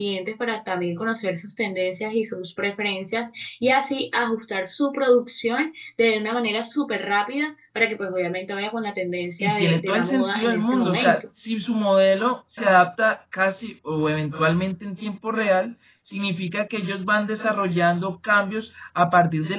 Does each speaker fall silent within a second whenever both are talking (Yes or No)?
No